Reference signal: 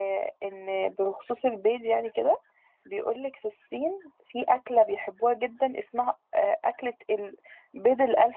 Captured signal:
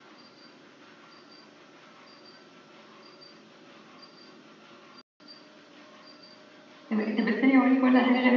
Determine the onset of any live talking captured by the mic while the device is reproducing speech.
6.9 s

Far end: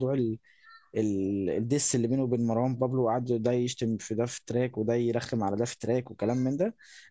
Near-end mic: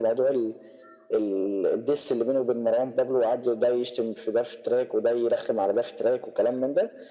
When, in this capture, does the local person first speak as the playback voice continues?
none

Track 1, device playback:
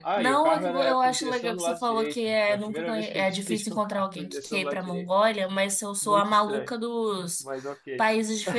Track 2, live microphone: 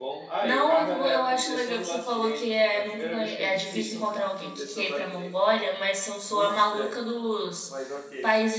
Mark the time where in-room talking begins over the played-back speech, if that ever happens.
none

